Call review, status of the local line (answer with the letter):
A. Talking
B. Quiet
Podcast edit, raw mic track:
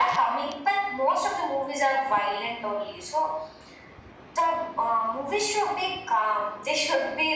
B